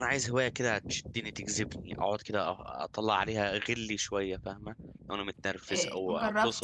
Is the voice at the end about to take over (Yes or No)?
Yes